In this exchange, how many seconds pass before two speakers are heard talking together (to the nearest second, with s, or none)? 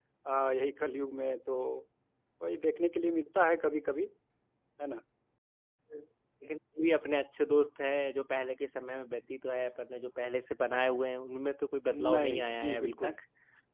12 s